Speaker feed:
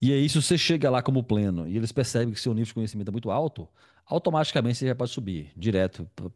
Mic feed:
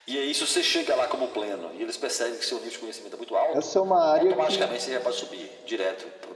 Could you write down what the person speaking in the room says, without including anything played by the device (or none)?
essa é uma área que